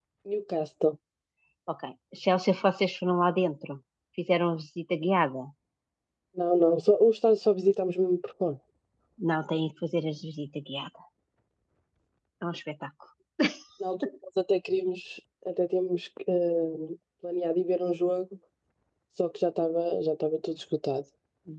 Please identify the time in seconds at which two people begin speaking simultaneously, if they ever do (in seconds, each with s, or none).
none